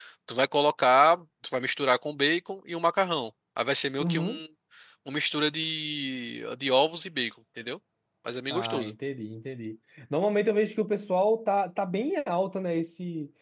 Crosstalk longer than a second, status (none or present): none